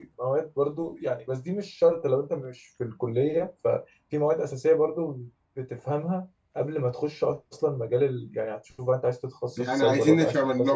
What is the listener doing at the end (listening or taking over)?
taking over